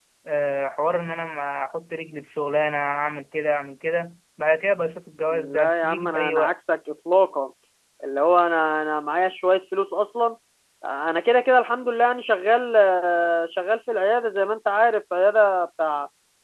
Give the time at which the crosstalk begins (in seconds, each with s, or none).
5.3 s